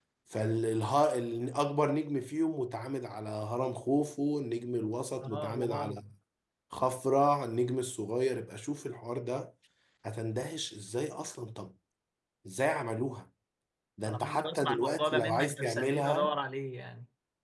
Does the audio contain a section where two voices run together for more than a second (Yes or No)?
Yes